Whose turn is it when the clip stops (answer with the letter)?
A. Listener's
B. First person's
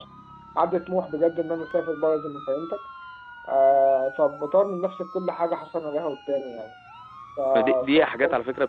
A